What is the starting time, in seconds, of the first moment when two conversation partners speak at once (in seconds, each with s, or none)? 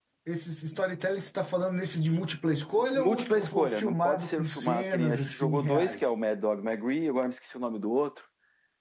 2.8 s